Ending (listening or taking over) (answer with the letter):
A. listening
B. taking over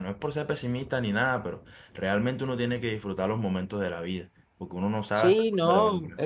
B